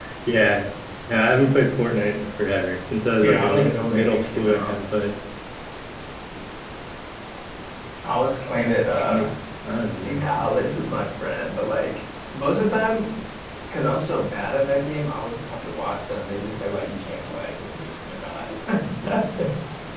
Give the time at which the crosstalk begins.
3.2 s

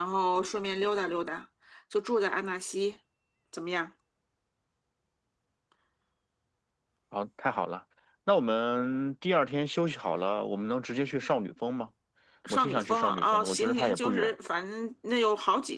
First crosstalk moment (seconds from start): 12.5 s

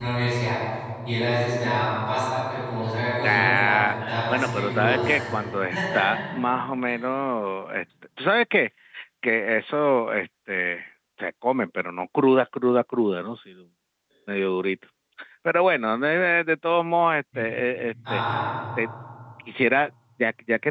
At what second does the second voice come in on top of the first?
3.2 s

